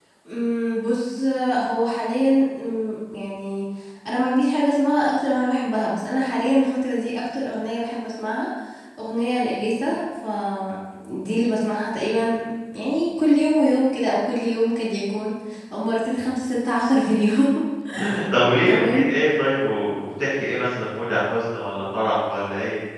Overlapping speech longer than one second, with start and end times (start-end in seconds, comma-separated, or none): none